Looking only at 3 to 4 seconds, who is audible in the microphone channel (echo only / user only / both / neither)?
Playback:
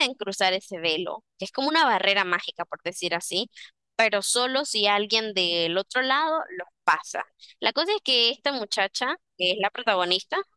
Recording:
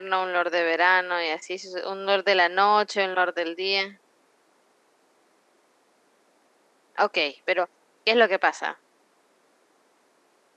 user only